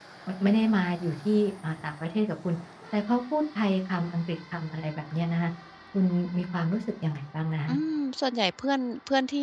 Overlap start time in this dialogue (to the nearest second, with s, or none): none